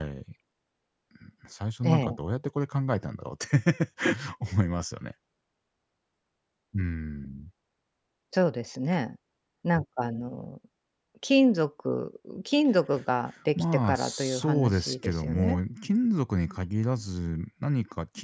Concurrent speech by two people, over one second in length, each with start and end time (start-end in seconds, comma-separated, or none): 13.6-15.6